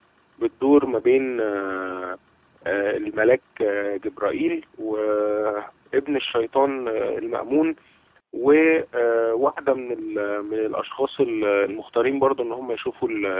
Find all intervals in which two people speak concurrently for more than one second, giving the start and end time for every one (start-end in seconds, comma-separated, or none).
none